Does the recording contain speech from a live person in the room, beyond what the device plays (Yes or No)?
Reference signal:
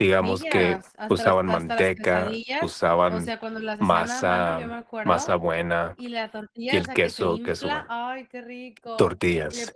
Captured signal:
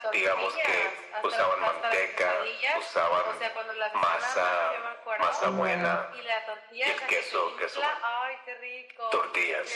Yes